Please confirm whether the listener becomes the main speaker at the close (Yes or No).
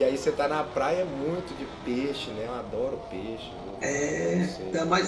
Yes